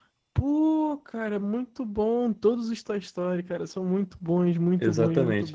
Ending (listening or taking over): taking over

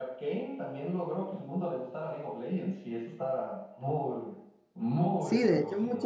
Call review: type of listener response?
taking over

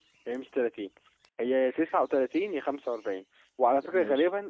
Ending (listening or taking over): listening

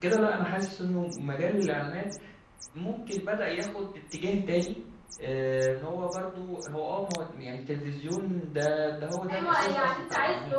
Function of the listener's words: taking over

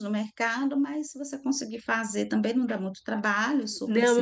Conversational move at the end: taking over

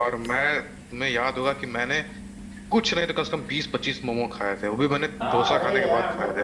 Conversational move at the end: taking over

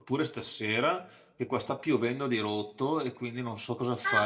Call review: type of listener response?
taking over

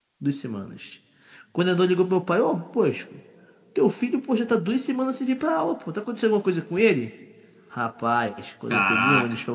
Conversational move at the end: listening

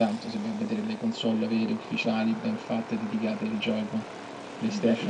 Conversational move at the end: taking over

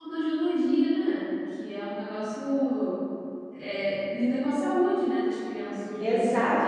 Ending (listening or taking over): taking over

